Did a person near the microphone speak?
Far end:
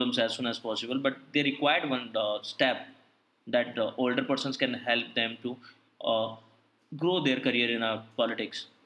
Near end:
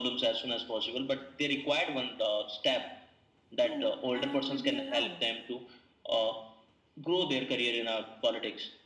Yes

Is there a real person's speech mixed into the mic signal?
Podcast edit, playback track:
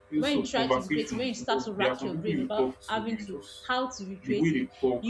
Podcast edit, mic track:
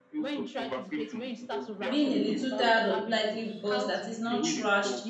Yes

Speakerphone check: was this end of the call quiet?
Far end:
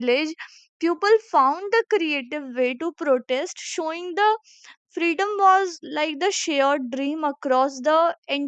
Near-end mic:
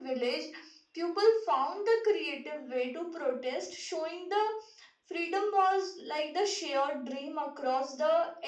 Yes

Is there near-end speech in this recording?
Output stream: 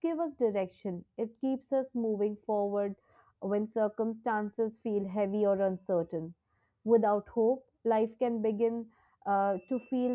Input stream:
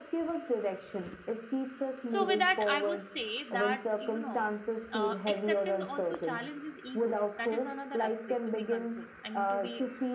Yes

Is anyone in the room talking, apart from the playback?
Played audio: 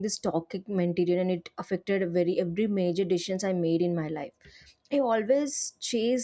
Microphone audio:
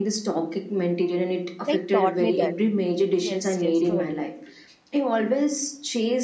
Yes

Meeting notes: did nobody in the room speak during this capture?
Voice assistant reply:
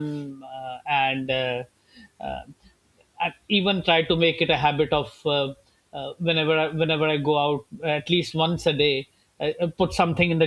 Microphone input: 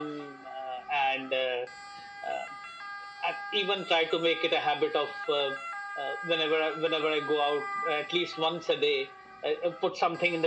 Yes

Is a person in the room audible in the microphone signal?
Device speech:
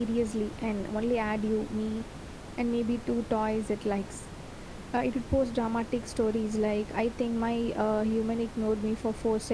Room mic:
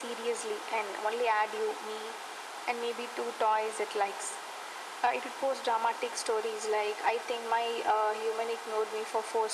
No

